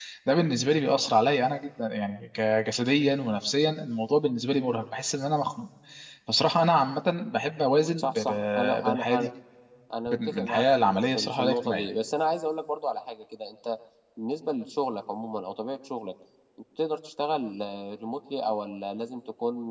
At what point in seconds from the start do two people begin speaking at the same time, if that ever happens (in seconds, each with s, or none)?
8.0 s